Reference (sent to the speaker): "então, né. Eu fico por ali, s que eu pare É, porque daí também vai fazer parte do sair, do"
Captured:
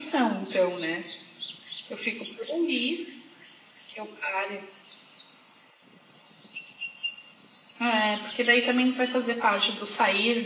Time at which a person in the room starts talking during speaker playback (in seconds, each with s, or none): none